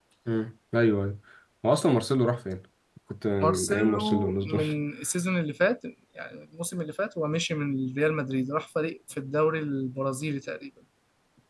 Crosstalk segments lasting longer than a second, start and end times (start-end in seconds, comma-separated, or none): 3.4-4.6